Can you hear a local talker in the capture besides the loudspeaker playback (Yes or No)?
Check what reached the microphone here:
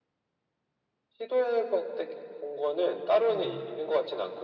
Yes